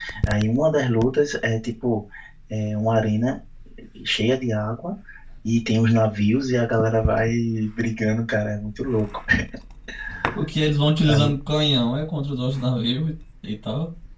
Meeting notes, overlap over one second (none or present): none